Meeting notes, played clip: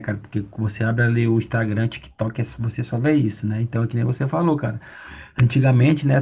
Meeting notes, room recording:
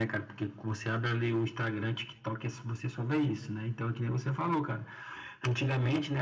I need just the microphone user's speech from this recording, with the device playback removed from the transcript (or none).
none